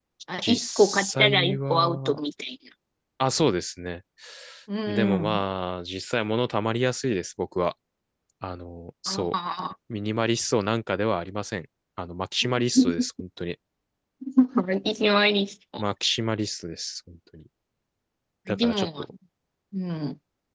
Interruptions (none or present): present